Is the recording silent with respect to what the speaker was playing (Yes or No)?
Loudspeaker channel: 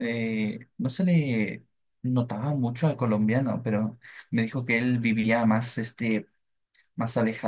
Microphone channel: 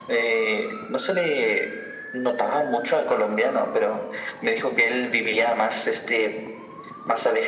No